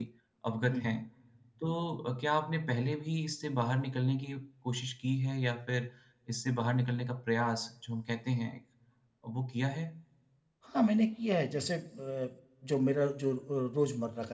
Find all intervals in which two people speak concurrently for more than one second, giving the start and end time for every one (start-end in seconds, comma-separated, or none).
none